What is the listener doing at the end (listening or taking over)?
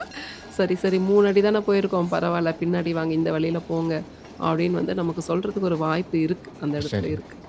taking over